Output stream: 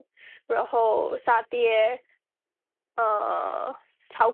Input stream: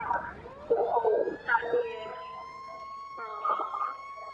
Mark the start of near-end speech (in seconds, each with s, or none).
none